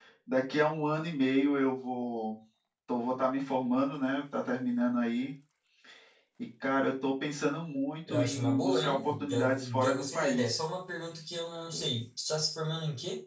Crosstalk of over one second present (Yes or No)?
Yes